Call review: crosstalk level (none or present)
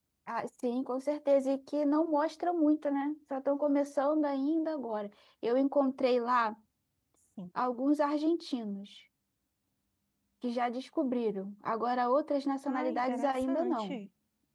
present